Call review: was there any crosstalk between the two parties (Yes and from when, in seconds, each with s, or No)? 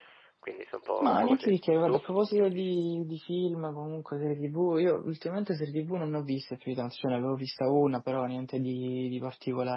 Yes, from 1.0 s